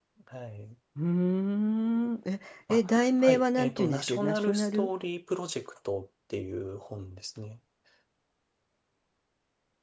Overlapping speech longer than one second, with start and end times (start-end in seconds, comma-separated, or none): 2.7-4.9